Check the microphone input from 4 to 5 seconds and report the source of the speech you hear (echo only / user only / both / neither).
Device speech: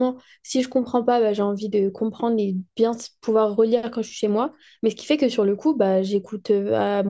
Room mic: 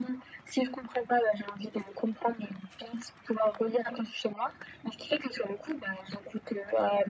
echo only